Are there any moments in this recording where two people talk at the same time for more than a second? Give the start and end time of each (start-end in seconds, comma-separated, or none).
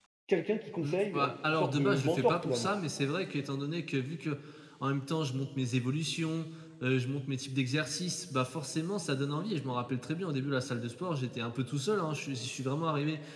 0.8-2.7